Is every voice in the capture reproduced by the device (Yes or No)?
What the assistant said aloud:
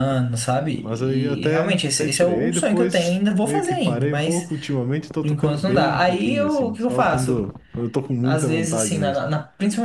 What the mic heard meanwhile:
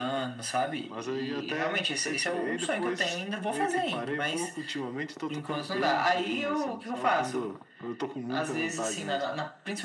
Yes